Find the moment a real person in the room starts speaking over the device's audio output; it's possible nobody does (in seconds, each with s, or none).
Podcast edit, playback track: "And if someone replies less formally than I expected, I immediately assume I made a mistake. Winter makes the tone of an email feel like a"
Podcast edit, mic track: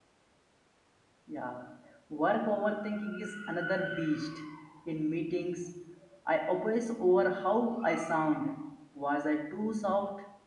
1.3 s